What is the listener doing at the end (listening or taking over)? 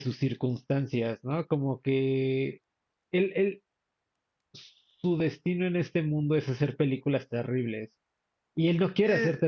listening